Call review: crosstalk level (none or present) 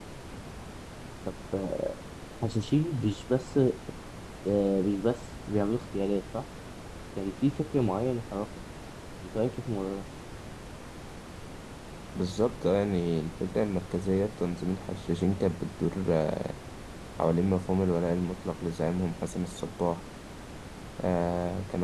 none